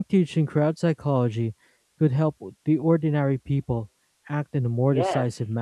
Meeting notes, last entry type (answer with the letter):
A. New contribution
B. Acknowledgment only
A